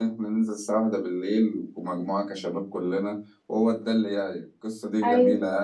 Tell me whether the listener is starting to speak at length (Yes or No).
No